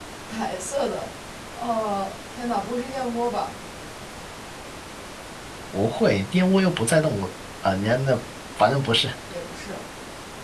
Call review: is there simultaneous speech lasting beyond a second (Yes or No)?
No